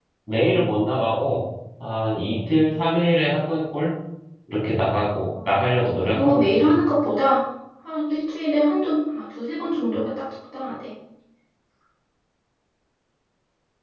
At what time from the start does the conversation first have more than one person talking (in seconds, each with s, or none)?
5.5 s